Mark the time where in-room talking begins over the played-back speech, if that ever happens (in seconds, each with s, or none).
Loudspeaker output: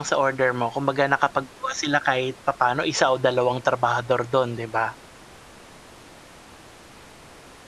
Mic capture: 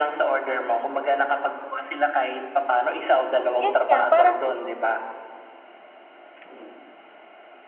3.6 s